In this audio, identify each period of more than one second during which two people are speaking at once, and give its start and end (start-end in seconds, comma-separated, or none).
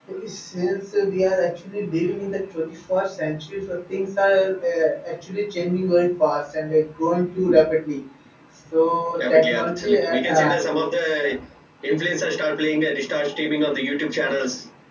9.2-10.6